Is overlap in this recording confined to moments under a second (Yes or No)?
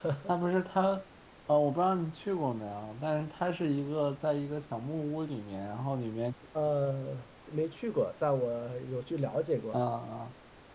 Yes